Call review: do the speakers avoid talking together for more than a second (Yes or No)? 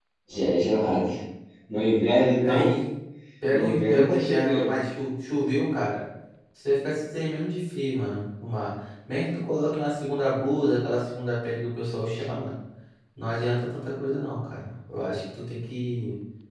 No